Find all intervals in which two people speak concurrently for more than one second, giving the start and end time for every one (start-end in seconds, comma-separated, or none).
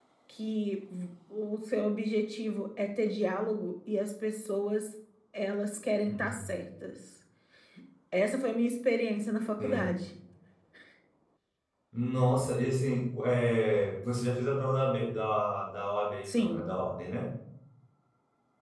none